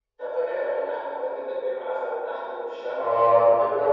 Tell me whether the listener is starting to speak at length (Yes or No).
Yes